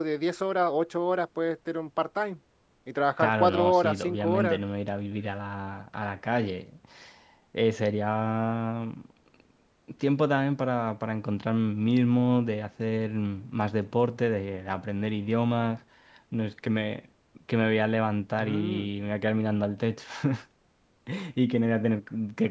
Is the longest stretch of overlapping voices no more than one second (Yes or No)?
No